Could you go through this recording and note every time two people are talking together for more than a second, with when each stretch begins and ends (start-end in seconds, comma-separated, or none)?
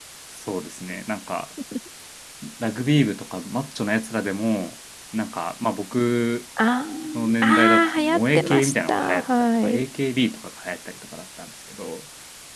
7.4-9.8